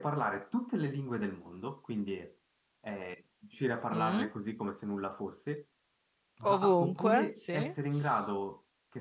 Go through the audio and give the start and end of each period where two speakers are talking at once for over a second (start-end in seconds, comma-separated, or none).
6.4-7.7